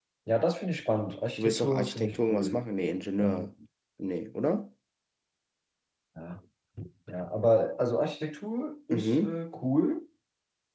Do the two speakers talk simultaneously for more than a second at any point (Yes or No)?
Yes